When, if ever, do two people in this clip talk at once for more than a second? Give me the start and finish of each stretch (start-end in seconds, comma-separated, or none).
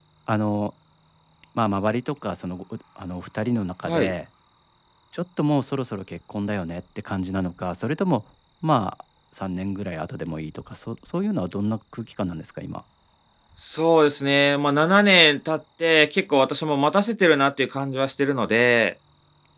none